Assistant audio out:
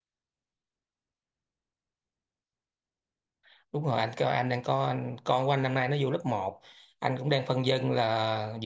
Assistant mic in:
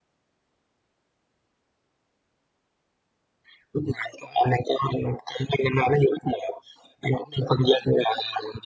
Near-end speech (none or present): none